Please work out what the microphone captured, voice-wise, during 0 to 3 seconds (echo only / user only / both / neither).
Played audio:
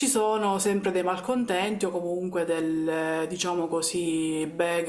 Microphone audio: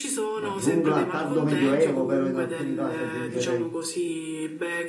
both